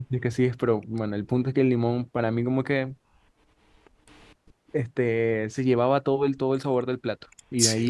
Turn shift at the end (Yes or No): No